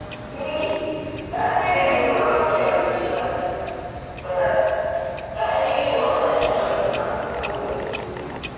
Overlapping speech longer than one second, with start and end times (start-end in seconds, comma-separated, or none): 1.7-3.0, 5.6-7.0